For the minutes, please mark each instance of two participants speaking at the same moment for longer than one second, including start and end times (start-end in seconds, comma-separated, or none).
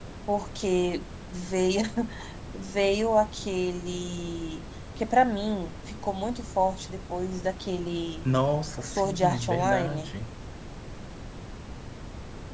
8.9-10.1